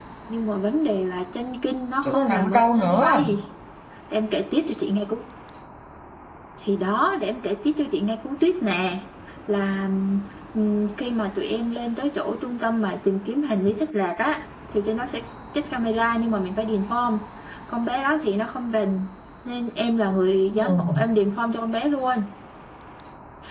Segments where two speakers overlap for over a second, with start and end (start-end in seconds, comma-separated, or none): 2.0-3.3